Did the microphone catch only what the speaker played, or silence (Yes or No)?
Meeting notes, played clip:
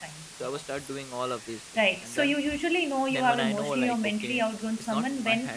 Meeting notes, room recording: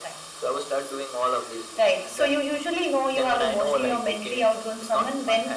Yes